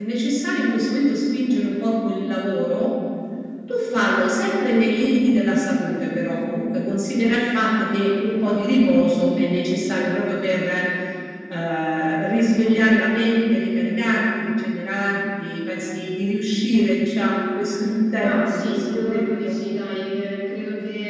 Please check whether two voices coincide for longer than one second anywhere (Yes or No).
Yes